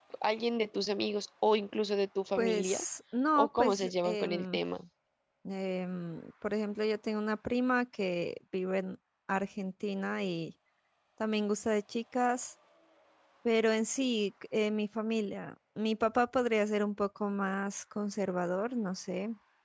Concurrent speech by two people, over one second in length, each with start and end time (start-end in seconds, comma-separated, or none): 3.4-4.6